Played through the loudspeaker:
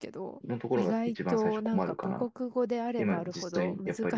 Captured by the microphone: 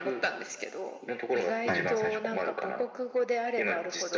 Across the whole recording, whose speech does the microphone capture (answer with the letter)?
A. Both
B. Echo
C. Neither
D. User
A